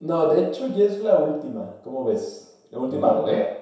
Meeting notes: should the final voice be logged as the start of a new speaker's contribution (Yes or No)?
Yes